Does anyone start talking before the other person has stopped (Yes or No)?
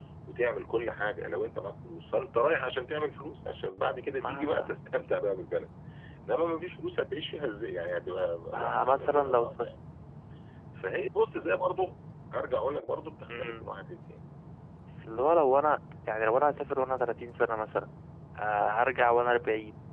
Yes